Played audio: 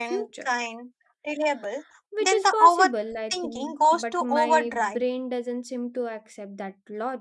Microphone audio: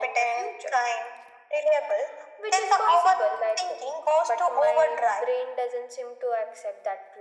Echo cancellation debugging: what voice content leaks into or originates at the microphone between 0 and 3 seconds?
echo only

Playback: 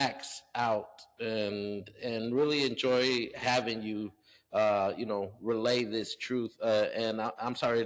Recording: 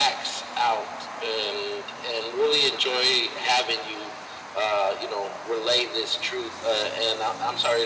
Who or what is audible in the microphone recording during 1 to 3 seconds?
echo only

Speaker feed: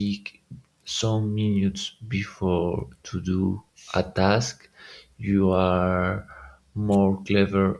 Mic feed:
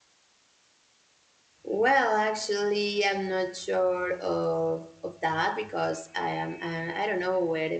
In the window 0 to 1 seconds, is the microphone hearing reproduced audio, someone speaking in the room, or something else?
neither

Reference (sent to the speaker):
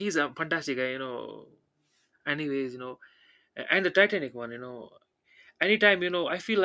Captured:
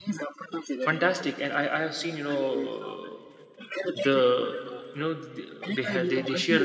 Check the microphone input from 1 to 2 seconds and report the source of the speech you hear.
both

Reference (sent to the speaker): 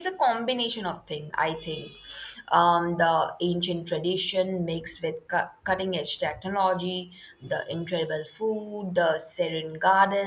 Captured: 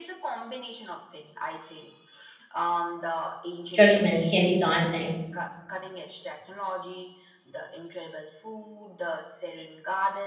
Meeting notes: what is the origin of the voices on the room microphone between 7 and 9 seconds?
echo only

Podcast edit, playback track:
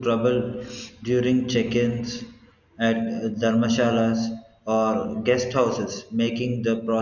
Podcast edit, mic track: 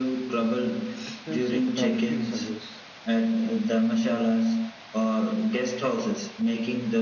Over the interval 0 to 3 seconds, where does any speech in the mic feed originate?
both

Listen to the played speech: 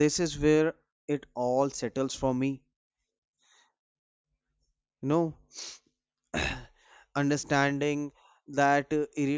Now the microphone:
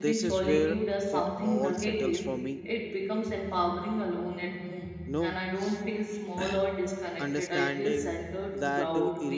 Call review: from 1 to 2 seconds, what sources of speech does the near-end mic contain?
both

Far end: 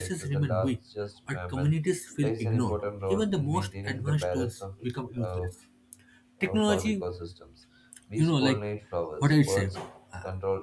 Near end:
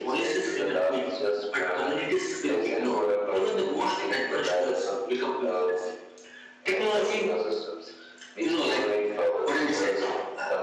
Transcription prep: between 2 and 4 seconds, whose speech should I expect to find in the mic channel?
echo only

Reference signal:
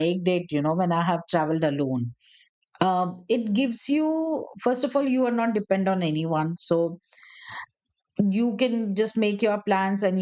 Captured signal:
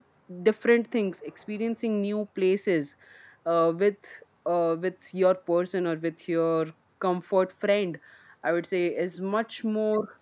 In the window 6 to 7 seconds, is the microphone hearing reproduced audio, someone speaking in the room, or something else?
user only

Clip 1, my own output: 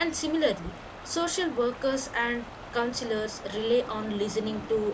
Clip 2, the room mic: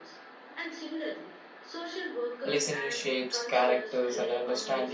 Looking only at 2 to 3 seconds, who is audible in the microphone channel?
both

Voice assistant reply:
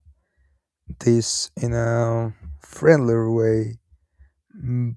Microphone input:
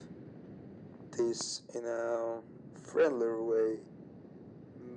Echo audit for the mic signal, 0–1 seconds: neither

